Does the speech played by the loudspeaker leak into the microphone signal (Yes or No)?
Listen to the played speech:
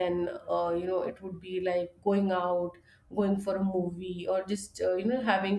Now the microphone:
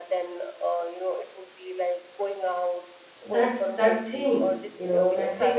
Yes